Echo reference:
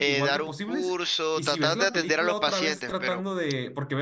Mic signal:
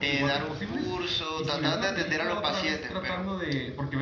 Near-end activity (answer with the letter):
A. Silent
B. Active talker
A